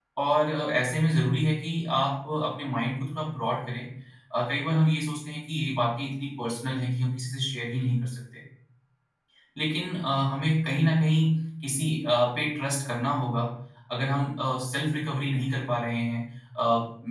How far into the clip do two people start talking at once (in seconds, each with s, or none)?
none